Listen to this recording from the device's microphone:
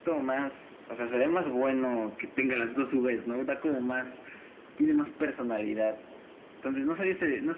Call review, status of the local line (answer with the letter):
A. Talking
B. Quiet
B